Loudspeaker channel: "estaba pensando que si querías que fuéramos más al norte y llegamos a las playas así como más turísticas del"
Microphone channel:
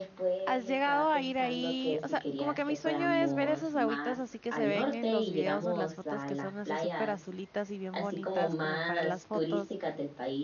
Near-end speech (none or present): present